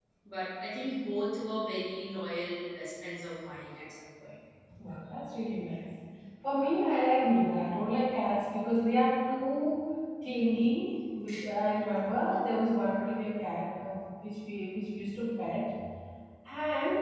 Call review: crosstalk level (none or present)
none